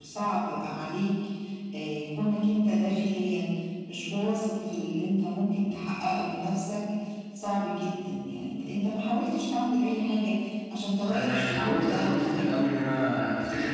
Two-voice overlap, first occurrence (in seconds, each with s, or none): 11.1 s